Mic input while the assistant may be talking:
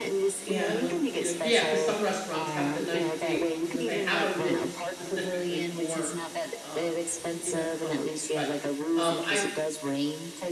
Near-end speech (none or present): present